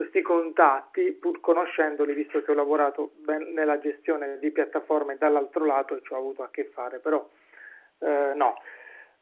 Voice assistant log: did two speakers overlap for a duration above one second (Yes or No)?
No